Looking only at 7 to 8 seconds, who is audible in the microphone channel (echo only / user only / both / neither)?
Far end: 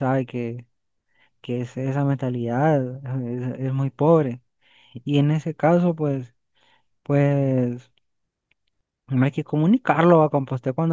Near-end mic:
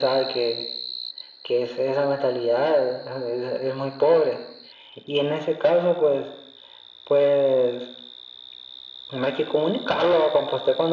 echo only